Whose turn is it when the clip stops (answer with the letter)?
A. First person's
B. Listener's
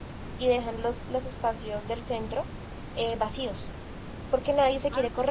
A